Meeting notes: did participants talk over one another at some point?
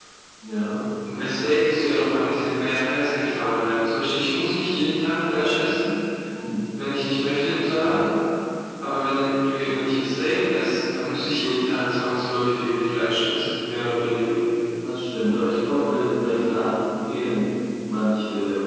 No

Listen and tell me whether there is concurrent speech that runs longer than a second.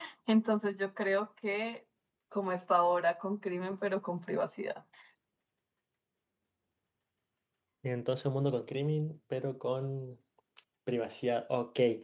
No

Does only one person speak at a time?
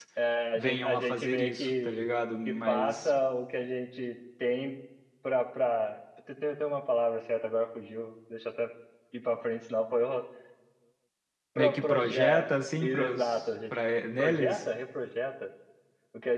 No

